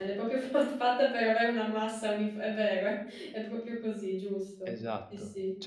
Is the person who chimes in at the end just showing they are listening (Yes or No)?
No